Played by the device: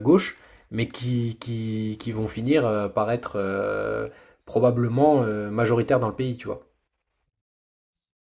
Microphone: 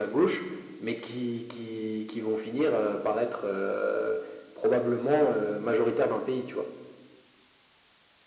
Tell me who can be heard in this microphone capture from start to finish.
echo only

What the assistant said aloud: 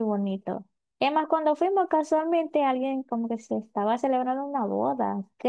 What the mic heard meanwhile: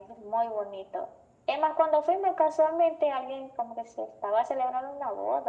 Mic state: echo only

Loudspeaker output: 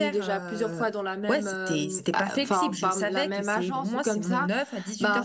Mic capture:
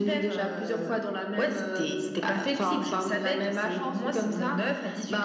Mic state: echo only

